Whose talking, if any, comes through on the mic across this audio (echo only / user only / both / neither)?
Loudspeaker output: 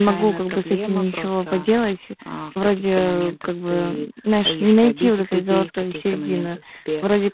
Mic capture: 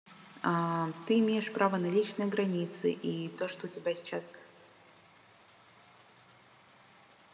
user only